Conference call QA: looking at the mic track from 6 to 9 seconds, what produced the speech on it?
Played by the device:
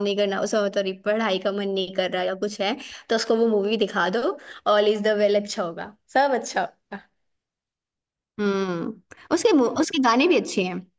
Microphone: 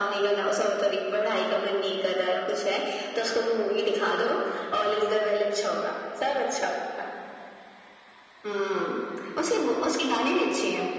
echo only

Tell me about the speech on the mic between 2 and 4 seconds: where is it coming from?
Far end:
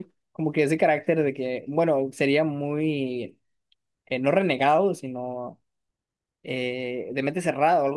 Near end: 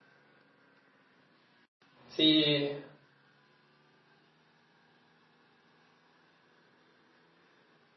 user only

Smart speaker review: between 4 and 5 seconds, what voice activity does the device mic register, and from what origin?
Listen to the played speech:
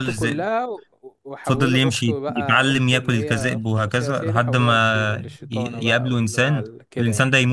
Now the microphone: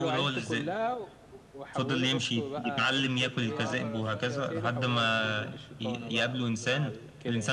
both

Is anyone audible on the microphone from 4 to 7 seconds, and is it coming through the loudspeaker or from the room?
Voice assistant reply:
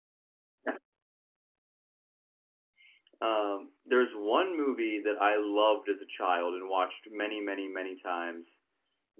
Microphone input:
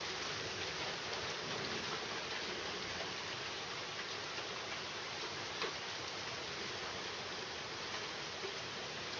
neither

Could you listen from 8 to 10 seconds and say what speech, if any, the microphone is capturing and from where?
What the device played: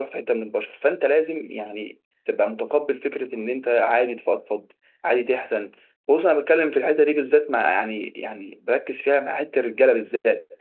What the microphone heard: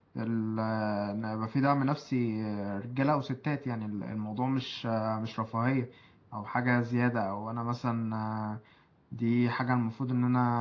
user only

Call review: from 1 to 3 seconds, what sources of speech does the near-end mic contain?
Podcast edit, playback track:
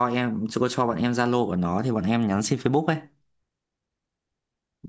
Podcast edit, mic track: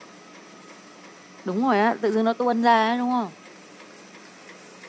user only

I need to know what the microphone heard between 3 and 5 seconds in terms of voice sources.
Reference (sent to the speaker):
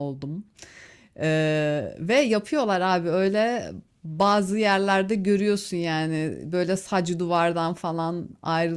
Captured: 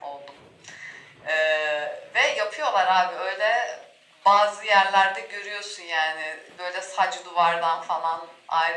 echo only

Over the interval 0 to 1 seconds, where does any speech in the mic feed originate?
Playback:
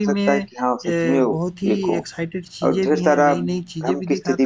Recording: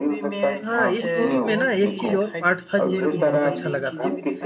both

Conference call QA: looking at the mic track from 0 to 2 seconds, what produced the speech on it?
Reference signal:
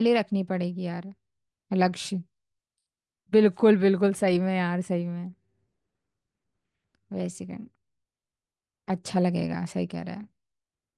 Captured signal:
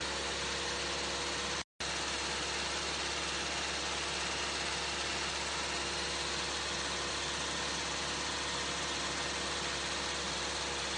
neither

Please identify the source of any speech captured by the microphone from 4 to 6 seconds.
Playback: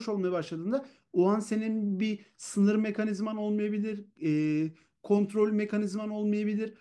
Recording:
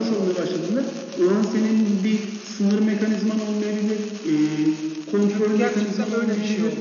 both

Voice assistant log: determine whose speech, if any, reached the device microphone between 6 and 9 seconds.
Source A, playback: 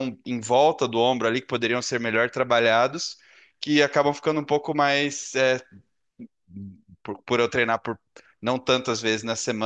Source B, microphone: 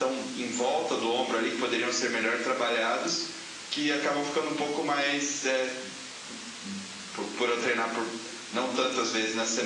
echo only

